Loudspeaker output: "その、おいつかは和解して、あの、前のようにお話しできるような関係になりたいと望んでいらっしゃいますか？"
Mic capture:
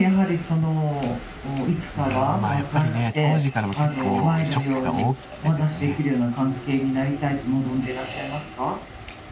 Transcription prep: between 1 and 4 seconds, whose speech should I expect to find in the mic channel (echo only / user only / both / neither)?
both